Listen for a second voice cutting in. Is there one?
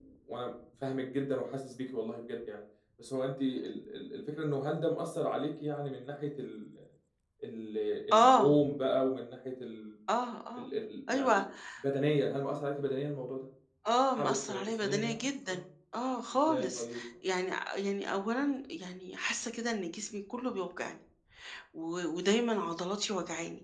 Yes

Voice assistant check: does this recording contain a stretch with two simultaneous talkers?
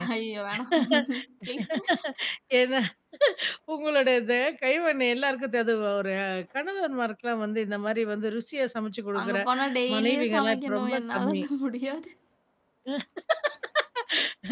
Yes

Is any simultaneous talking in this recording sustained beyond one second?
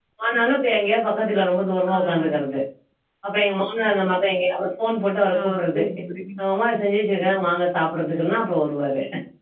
No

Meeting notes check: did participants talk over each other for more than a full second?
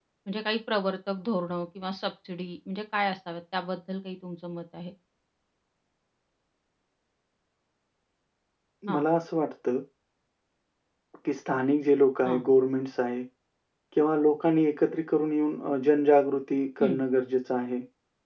No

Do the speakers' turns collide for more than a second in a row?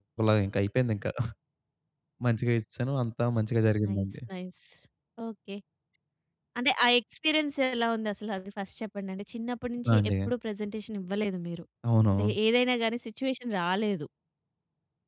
No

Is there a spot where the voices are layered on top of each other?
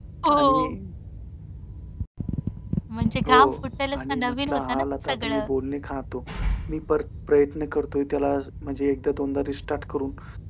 Yes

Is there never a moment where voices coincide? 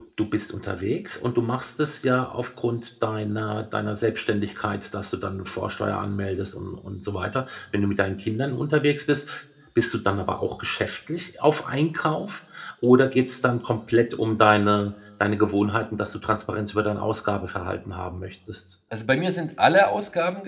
Yes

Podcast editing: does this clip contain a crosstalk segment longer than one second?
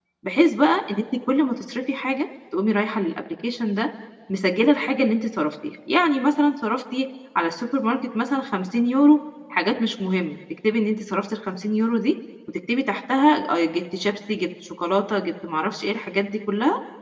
No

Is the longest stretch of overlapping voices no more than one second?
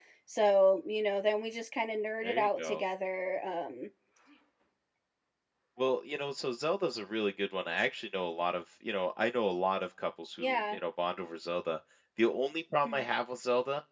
Yes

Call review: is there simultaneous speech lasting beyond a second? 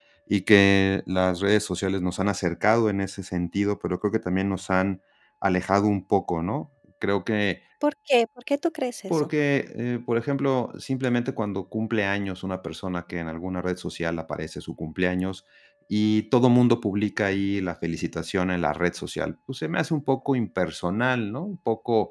No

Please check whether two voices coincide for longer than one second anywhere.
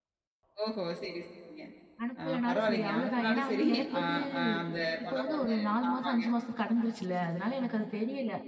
Yes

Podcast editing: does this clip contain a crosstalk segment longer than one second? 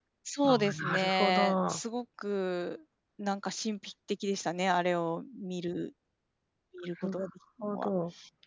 Yes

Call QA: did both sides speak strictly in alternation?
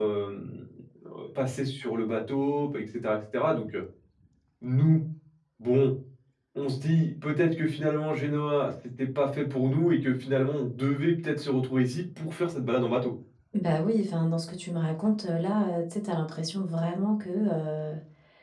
Yes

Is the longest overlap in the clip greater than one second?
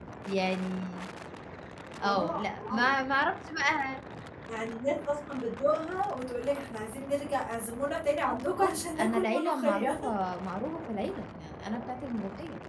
Yes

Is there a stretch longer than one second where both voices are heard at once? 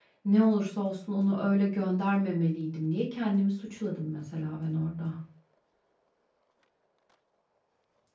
No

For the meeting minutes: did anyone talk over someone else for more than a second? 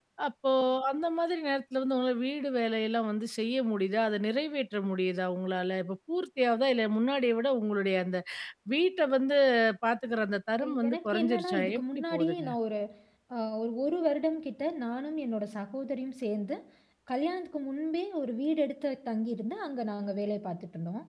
Yes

